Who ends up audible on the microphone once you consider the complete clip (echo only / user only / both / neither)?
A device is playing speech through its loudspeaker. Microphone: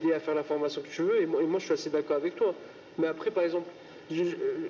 echo only